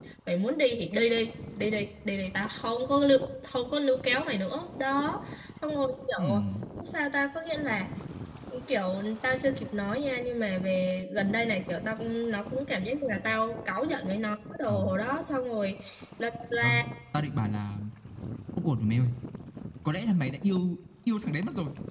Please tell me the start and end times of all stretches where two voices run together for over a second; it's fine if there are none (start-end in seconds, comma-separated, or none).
none